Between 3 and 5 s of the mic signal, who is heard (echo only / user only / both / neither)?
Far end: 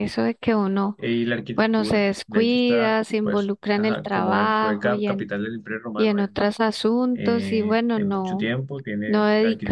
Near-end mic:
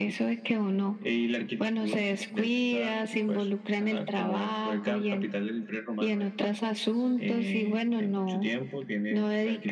echo only